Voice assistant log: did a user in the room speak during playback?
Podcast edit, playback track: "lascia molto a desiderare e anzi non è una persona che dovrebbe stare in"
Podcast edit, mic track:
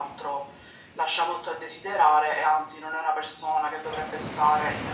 No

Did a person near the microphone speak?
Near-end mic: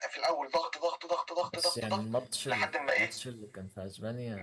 Yes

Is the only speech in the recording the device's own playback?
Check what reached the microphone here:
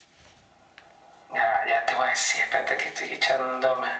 Yes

